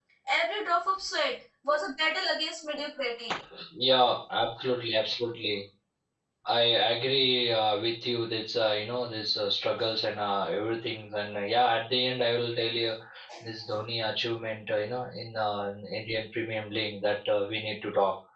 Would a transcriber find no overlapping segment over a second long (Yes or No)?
Yes